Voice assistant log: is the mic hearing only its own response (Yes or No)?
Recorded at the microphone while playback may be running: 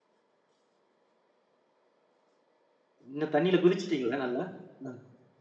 No